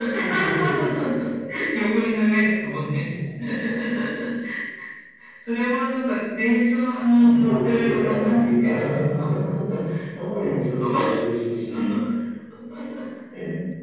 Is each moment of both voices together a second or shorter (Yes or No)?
No